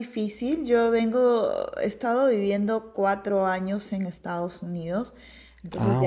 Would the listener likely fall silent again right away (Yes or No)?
Yes